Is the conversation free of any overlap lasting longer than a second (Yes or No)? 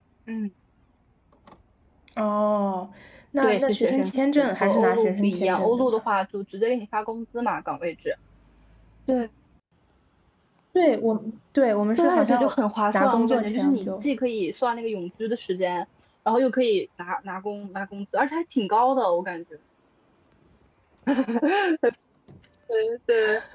No